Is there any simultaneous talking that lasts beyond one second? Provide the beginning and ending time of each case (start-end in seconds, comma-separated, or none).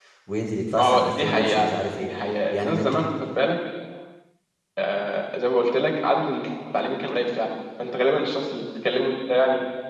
0.8-2.1